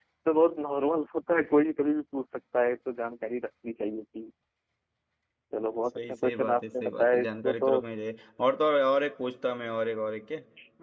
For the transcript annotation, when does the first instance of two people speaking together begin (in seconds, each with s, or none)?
6.0 s